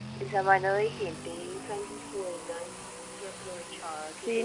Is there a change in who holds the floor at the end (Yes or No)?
Yes